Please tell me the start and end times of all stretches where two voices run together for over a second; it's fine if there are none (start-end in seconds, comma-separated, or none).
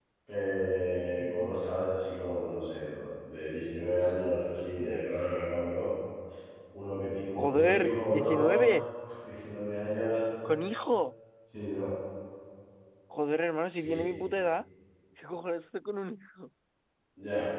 7.4-8.6